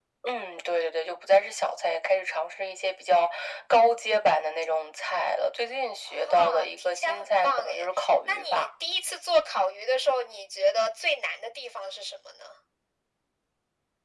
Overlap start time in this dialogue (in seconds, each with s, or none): 6.1 s